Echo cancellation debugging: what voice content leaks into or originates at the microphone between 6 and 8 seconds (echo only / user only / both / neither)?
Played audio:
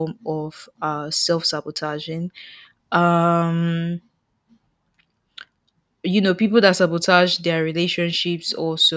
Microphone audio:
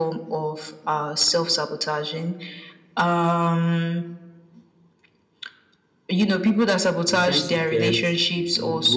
both